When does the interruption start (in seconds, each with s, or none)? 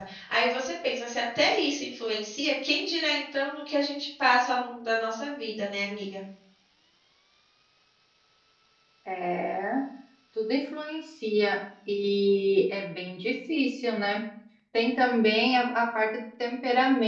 none